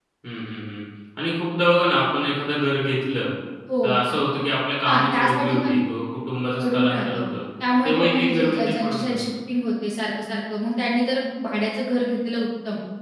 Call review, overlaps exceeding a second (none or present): present